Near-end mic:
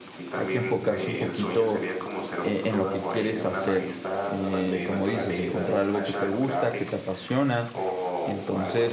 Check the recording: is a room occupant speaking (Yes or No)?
Yes